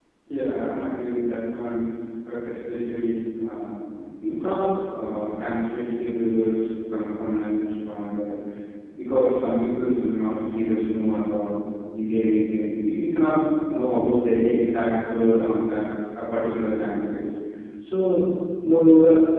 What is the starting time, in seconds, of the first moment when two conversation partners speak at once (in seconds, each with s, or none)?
none